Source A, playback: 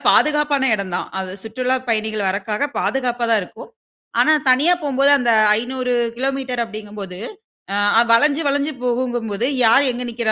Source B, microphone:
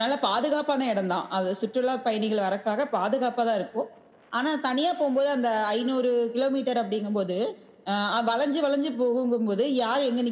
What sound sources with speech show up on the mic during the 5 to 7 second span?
echo only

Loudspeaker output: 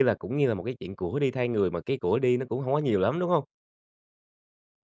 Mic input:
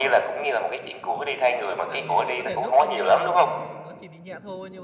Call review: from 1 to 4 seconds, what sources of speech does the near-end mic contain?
both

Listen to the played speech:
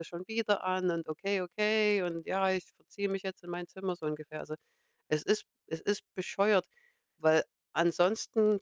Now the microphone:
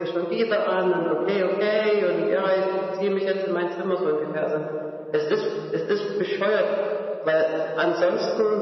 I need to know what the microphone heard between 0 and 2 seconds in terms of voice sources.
echo only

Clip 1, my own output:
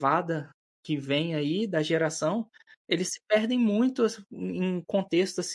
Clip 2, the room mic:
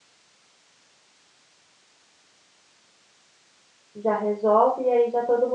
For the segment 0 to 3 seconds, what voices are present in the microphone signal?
neither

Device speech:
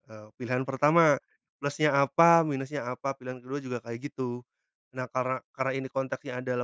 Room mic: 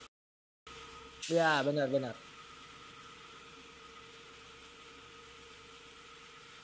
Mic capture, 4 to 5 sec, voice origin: neither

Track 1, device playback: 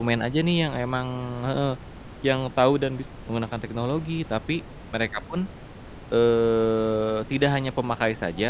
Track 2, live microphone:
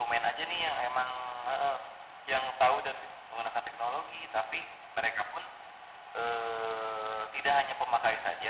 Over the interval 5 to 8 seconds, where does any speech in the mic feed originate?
echo only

